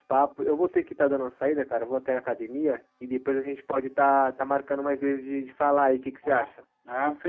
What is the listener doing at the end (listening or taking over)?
taking over